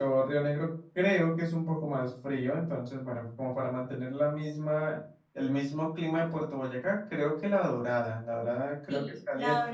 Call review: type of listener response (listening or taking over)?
taking over